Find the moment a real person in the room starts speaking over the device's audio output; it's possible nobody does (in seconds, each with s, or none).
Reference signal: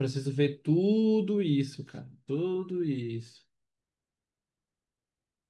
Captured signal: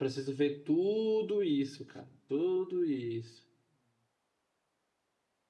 none